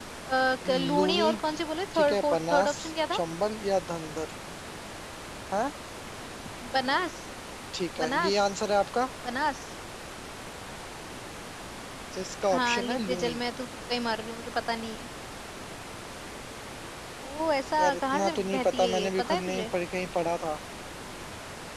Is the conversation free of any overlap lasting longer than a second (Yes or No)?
No